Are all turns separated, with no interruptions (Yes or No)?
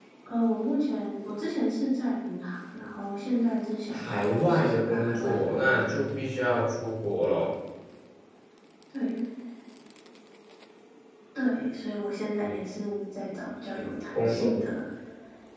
No